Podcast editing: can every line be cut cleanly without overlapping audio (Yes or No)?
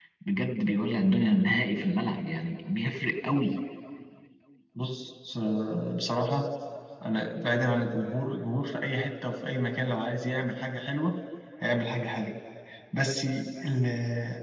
Yes